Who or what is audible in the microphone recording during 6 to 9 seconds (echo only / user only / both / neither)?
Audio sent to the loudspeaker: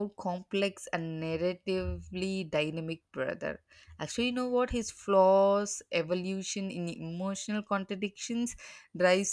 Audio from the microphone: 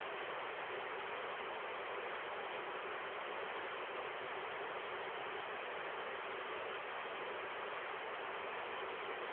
neither